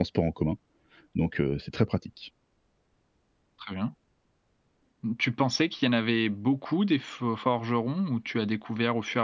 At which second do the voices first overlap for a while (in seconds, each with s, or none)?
none